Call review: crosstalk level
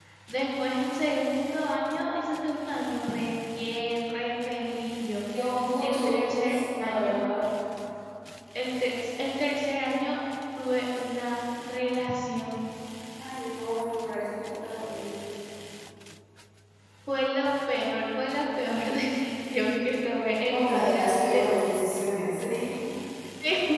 present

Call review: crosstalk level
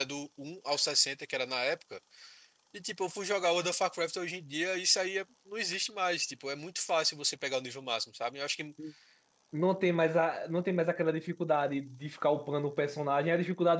none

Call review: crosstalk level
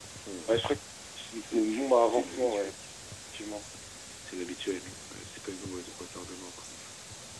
present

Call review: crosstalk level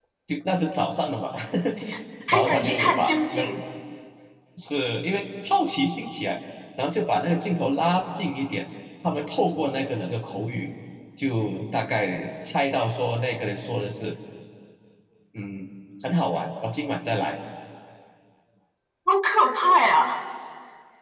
present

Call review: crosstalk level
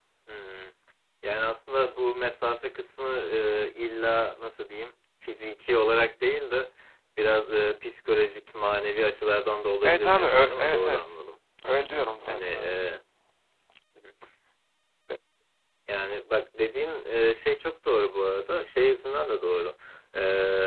present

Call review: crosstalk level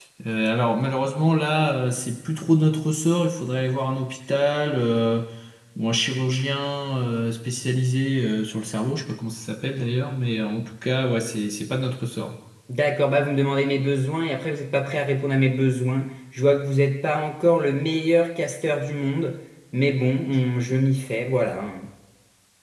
none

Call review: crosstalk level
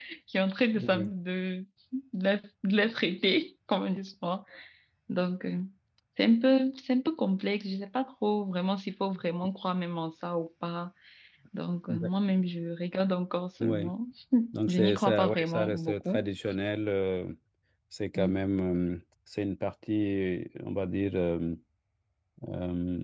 present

